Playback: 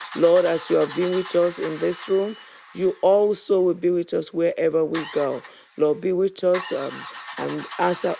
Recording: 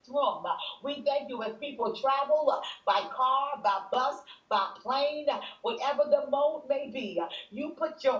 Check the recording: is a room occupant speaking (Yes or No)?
Yes